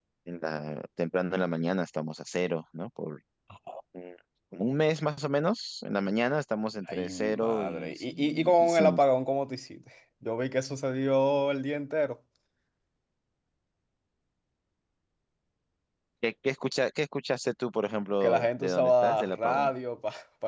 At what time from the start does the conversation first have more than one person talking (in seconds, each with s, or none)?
6.9 s